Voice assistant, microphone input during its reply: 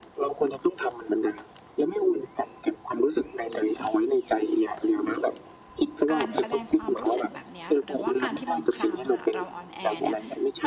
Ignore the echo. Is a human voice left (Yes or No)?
Yes